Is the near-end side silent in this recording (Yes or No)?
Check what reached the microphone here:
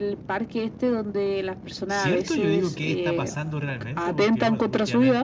No